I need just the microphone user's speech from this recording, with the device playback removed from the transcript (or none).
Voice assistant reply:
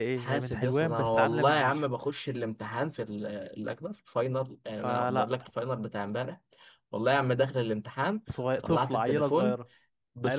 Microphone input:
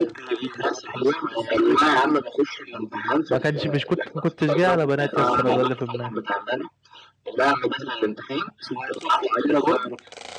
ما كانش مش كنت ما كنتش جاي على بنات يس لو ده اللي في دماغك